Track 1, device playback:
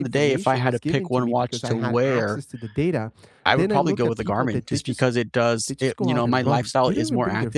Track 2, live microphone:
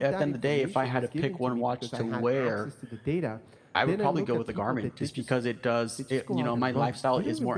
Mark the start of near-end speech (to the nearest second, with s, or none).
none